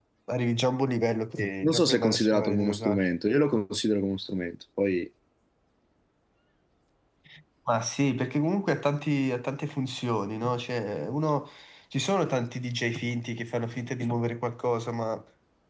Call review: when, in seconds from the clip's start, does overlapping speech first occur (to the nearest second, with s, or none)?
2 s